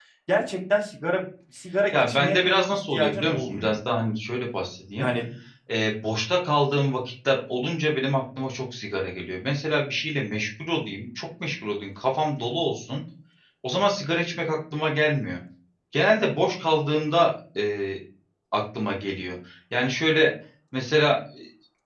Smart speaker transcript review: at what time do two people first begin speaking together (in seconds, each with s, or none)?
1.9 s